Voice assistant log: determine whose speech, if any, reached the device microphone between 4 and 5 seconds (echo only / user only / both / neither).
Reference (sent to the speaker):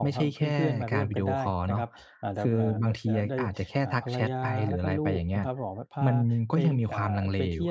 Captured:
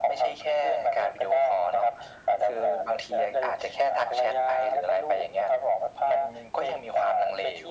echo only